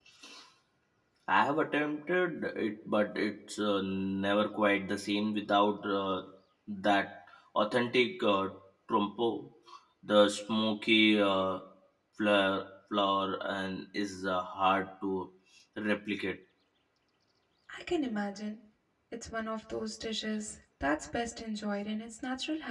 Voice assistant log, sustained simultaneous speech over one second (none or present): none